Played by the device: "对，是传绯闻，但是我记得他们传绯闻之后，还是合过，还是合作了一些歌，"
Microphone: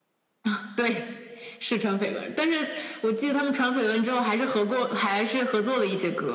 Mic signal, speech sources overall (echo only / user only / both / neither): echo only